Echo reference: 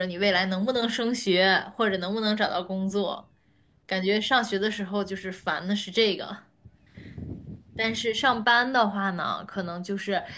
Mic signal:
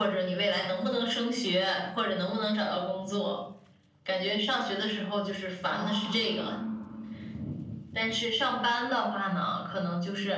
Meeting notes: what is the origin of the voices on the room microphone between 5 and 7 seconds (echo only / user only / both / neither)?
both